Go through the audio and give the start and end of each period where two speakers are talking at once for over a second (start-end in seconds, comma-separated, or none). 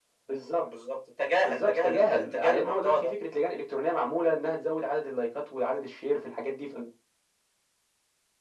1.4-3.1